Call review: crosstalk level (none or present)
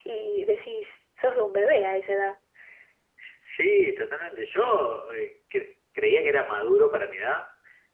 none